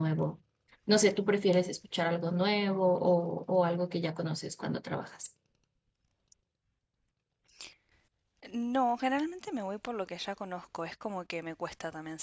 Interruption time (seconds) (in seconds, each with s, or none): none